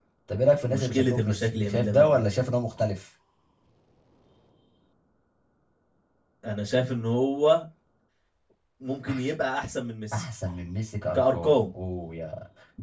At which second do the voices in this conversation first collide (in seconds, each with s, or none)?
0.6 s